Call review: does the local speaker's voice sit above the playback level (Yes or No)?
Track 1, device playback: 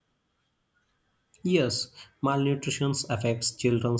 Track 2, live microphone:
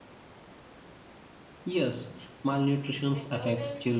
No